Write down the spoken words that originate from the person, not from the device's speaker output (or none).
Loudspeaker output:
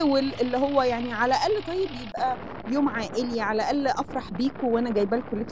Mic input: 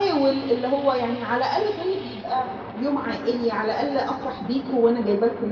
none